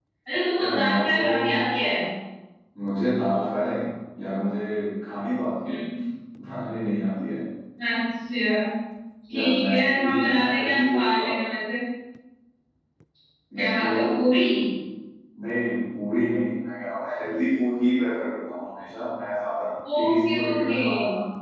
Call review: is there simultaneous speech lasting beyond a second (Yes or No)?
Yes